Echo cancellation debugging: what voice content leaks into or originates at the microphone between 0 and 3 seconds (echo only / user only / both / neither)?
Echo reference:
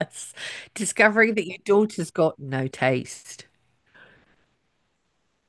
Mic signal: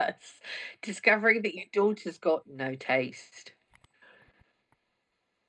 echo only